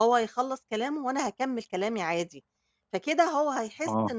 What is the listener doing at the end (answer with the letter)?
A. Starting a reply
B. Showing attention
B